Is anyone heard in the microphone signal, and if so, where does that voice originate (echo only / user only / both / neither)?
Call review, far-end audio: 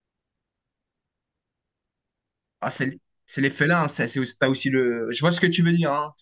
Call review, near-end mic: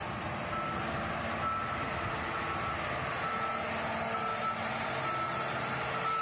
neither